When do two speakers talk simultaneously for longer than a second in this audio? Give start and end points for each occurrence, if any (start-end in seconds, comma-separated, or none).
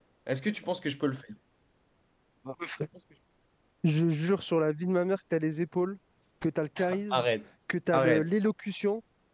none